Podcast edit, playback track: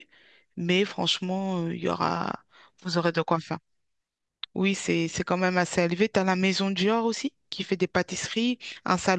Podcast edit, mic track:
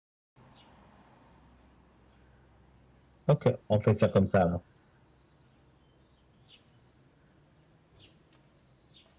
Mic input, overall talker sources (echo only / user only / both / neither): user only